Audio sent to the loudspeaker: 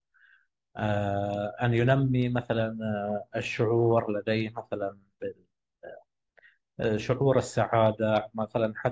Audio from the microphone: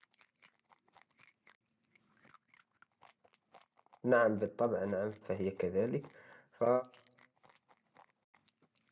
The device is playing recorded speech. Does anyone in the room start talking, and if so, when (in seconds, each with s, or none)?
4.0 s